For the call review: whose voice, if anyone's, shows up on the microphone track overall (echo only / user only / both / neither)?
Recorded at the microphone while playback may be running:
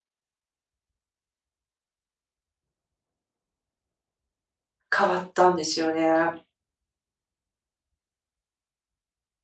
user only